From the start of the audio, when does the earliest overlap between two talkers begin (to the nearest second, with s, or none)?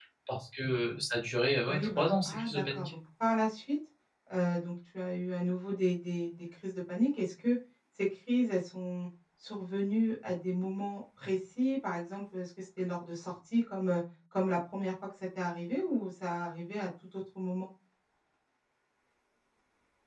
2 s